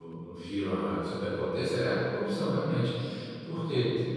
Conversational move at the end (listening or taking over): listening